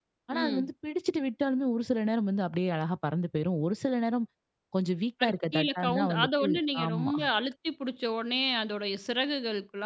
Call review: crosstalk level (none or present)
present